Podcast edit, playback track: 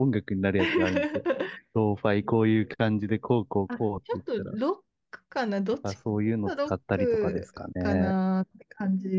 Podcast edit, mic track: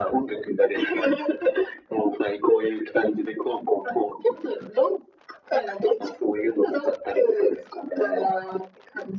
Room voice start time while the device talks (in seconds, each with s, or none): none